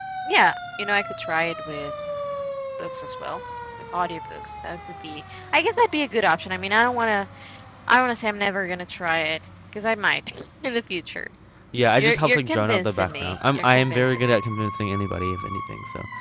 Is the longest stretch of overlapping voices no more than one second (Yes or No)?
No